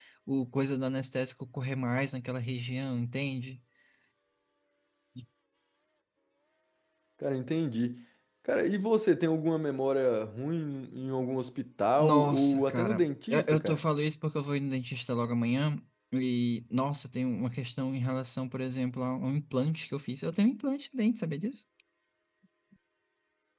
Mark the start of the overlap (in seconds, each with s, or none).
12.0 s